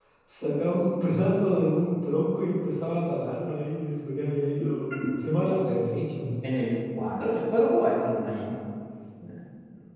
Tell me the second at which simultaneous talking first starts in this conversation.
none

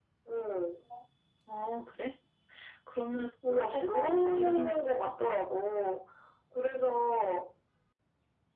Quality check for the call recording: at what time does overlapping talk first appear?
3.5 s

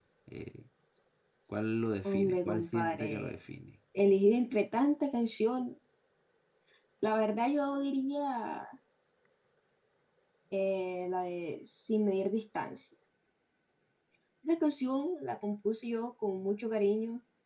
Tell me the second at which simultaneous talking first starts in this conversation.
2.1 s

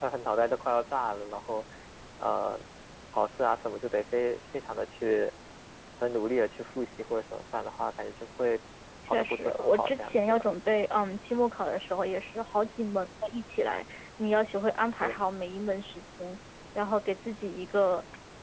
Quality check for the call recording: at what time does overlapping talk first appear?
9.1 s

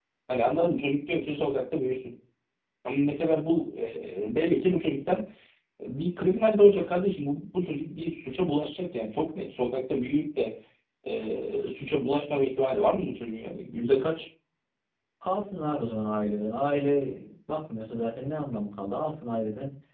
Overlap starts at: none

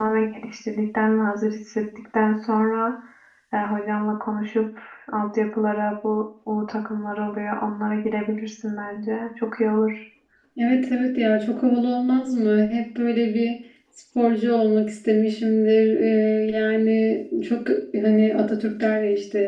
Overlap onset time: none

